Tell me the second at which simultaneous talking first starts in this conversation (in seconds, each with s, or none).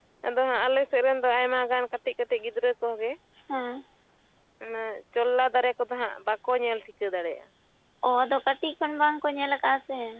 none